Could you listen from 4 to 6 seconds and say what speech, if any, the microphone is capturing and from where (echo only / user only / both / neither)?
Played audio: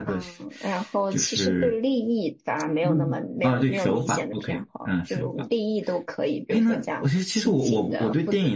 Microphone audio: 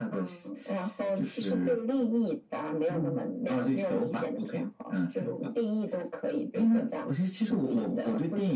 echo only